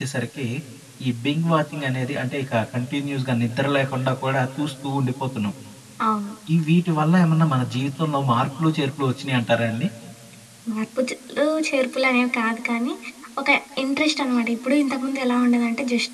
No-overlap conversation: Yes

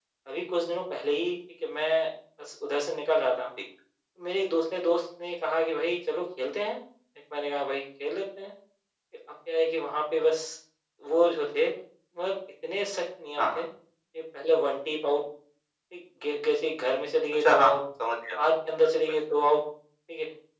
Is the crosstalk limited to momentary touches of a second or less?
Yes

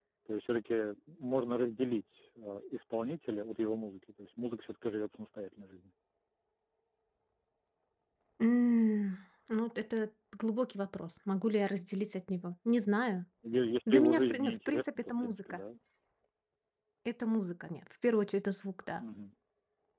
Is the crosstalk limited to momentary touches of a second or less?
No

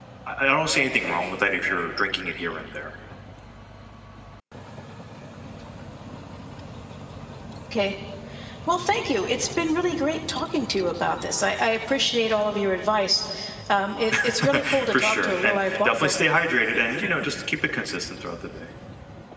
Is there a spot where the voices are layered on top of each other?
Yes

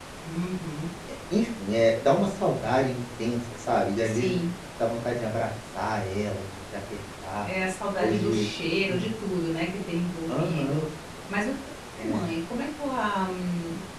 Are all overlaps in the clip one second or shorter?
Yes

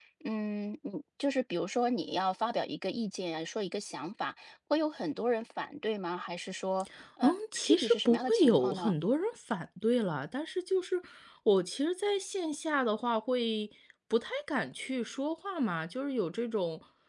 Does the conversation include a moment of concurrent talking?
Yes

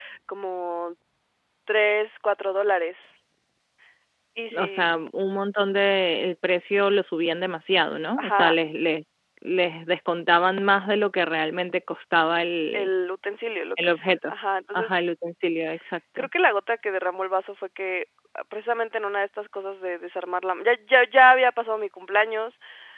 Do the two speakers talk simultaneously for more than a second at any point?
No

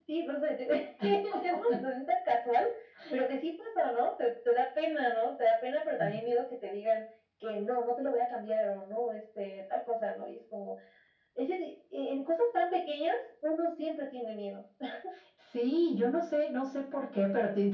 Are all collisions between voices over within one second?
Yes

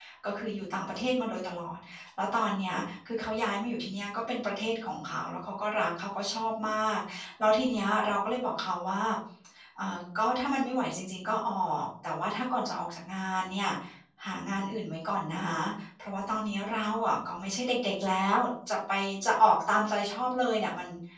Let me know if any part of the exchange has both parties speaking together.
No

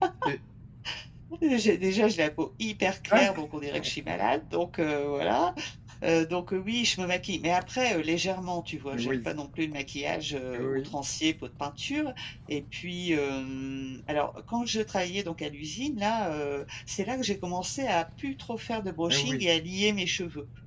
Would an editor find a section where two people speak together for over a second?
No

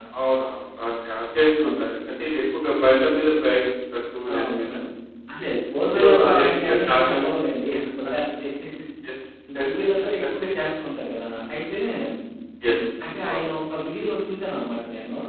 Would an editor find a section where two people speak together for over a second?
Yes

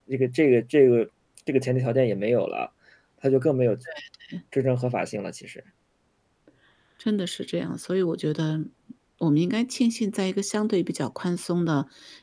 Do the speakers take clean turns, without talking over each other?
Yes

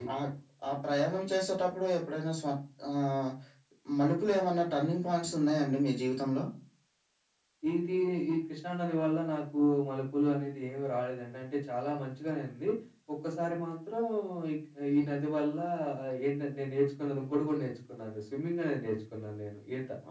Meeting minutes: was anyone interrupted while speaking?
No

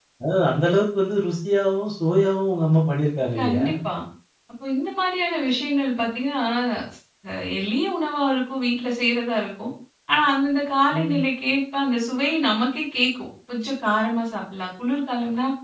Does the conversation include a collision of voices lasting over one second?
No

